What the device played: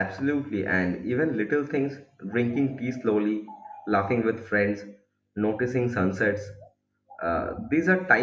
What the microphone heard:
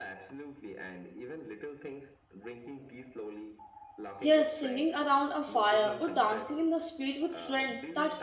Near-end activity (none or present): present